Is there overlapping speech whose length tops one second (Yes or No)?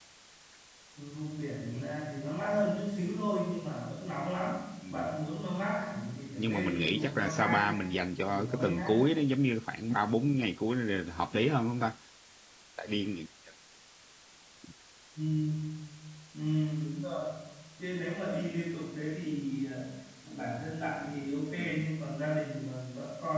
Yes